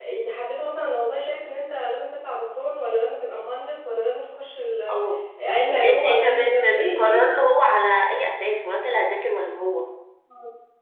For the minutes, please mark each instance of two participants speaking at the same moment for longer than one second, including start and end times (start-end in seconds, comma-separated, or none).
5.7-7.3